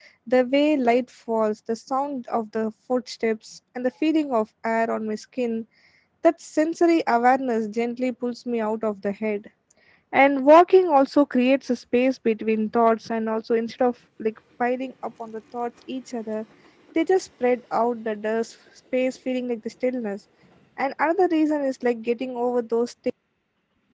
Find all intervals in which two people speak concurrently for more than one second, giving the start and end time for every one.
none

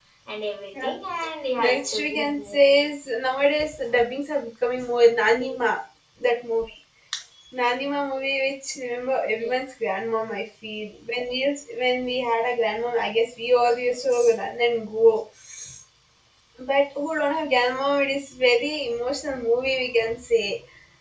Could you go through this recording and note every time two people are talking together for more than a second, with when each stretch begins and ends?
1.6-2.8

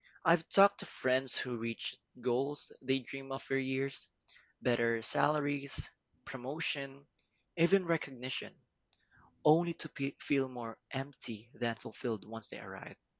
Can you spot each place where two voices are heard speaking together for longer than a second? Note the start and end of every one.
none

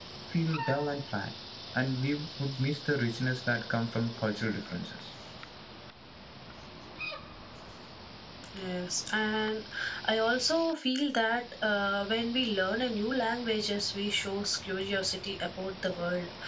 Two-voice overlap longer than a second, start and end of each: none

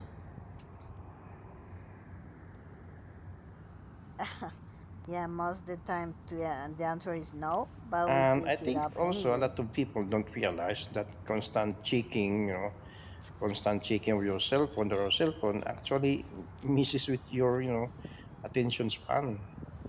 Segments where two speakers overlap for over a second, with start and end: 8.1-9.5

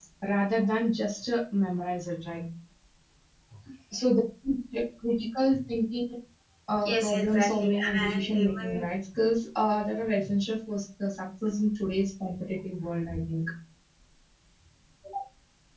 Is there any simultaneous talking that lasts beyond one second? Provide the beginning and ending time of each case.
6.8-8.8

